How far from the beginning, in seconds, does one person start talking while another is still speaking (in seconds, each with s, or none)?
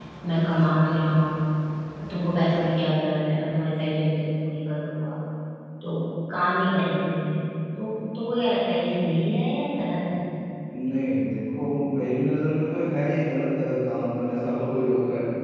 none